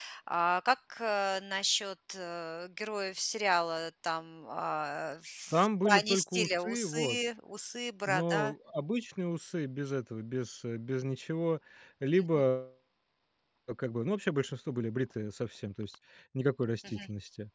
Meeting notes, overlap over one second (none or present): present